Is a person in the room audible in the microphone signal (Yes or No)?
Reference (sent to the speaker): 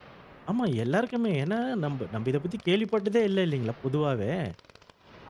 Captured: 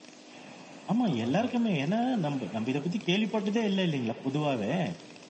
Yes